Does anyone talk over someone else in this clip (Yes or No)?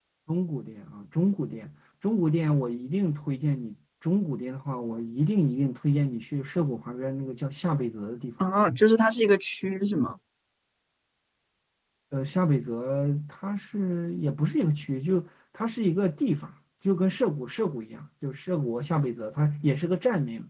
No